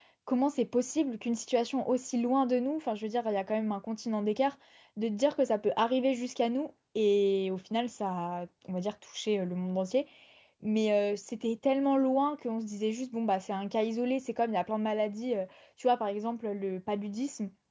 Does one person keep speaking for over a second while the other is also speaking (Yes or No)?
No